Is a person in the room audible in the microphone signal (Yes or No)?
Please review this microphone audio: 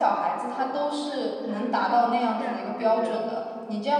Yes